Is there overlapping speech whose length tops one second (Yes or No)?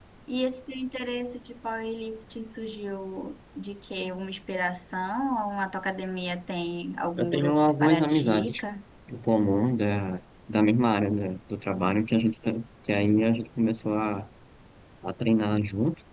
Yes